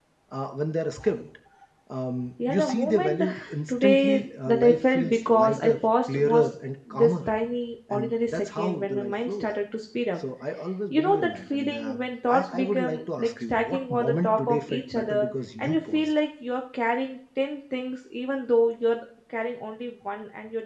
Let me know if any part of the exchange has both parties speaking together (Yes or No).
Yes